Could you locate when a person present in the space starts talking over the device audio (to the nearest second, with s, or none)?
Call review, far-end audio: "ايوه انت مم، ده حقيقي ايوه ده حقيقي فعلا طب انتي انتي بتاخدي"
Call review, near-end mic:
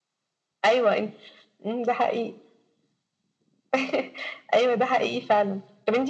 none